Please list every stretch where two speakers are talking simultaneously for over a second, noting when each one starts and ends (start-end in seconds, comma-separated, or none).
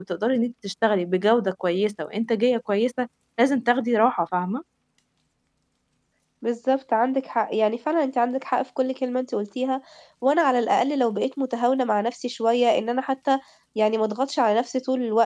none